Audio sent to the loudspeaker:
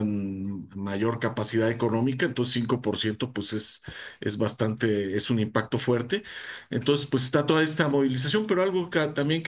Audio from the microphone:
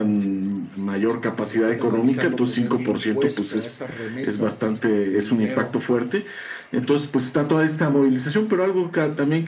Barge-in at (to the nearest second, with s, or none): 1 s